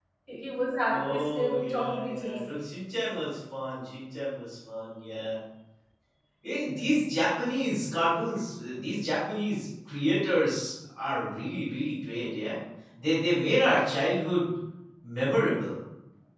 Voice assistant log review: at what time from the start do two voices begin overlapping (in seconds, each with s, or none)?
0.9 s